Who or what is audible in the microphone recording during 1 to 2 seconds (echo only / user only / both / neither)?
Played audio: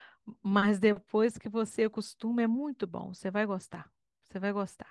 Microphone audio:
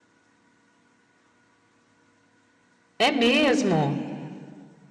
neither